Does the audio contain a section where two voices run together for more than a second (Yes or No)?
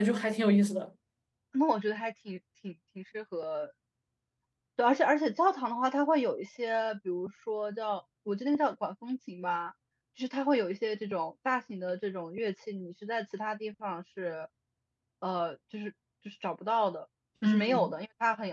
No